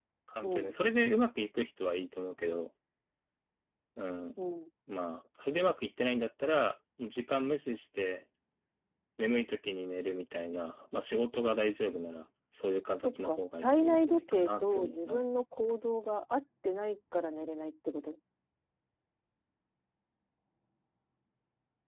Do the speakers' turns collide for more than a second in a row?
Yes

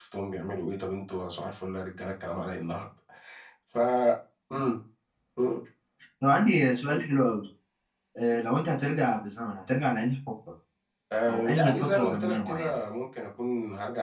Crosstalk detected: Yes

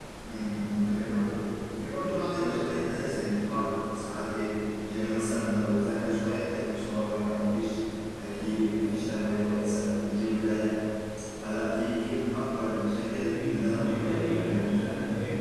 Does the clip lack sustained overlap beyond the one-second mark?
No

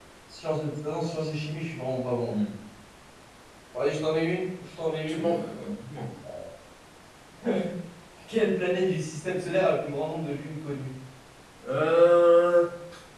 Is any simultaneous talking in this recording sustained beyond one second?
No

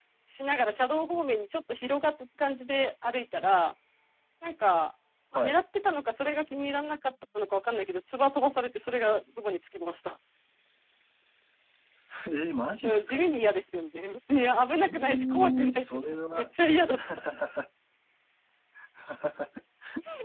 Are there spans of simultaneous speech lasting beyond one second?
Yes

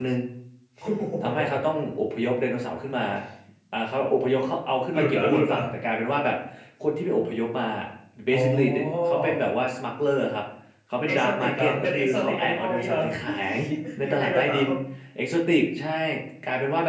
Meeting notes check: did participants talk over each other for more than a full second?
Yes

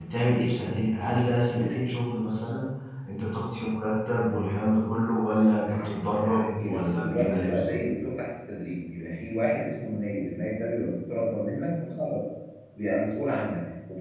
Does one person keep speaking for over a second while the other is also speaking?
Yes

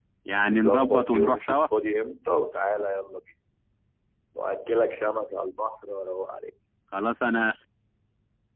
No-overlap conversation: No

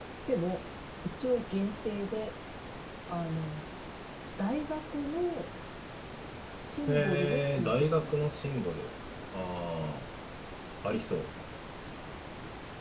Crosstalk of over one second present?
Yes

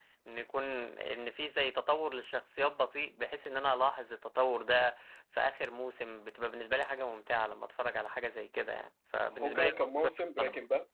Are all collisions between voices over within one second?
No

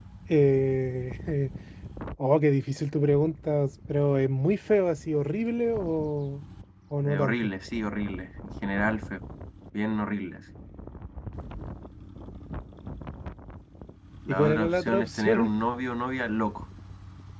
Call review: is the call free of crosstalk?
No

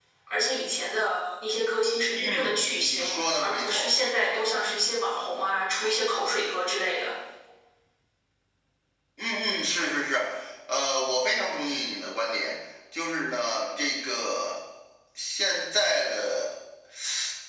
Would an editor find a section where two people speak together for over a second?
Yes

